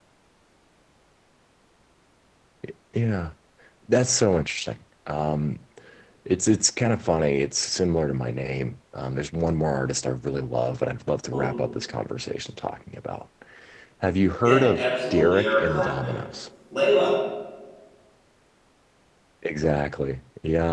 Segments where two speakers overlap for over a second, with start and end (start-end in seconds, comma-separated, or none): 14.4-16.2